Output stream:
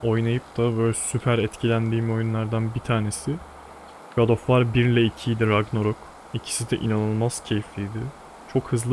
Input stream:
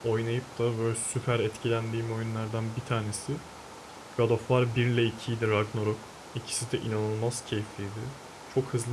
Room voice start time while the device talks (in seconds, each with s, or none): none